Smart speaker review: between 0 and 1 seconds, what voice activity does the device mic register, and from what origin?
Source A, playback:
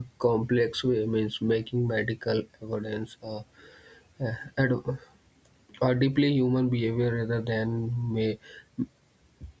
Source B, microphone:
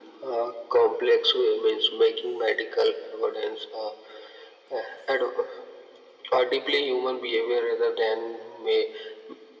echo only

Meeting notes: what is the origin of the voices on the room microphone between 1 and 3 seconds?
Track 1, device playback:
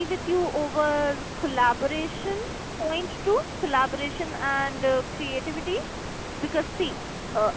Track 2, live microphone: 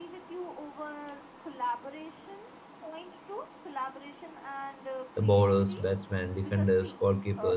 echo only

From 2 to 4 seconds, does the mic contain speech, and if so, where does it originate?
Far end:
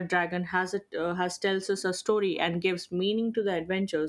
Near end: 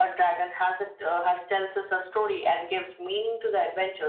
echo only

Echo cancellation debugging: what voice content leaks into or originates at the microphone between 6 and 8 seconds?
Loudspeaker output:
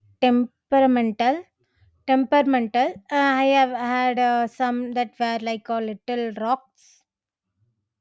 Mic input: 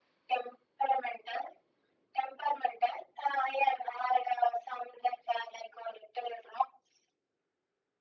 echo only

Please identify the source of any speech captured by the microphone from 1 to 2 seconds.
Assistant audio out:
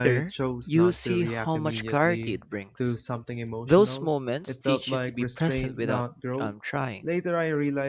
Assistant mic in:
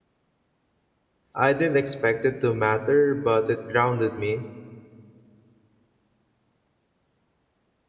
user only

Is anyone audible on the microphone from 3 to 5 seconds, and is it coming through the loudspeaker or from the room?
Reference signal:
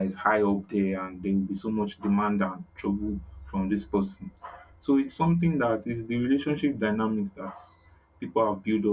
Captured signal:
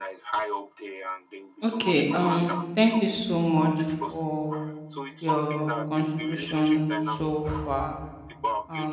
both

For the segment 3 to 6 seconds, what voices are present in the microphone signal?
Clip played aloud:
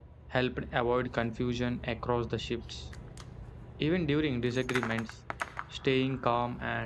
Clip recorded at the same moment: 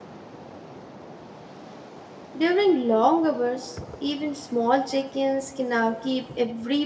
user only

